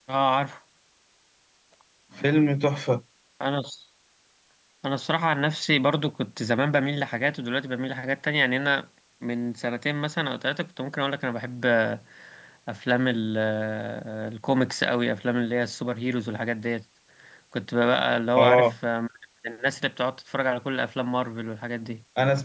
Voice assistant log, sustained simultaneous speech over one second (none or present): none